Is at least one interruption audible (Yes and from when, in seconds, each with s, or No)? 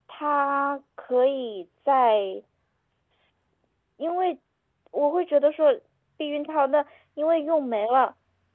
No